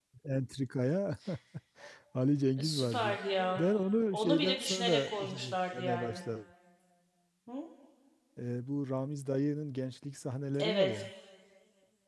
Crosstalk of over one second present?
Yes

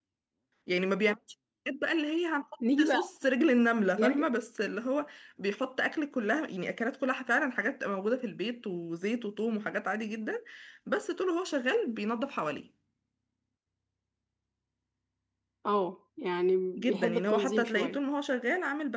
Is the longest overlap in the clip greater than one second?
Yes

